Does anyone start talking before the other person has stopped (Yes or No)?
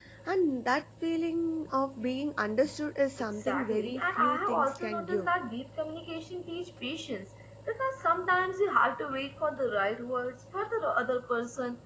Yes